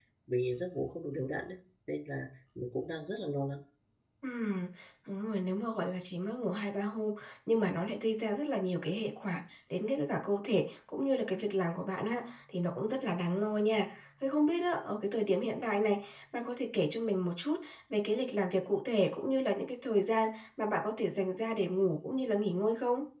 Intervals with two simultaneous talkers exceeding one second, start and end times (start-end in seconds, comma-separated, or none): none